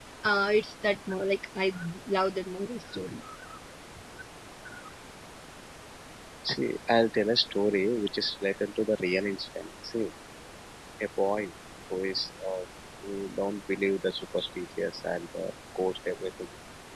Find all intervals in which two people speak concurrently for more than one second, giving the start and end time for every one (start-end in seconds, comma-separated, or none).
none